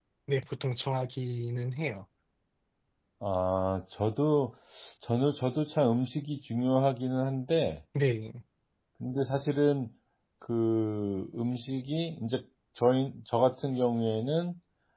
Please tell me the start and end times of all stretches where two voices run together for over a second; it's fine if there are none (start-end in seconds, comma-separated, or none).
none